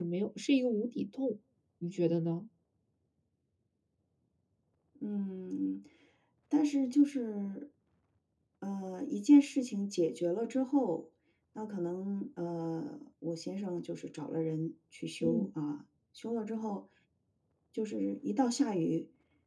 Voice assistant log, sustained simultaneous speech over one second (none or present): none